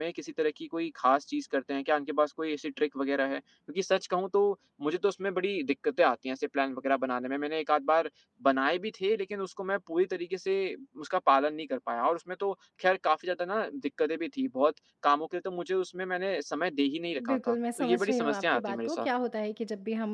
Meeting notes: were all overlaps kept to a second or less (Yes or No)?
No